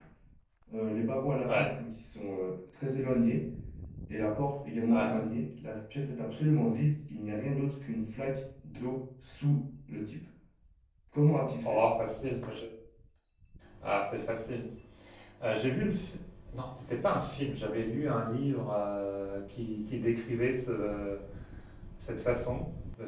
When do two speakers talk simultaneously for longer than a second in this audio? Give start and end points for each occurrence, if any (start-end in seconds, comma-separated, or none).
none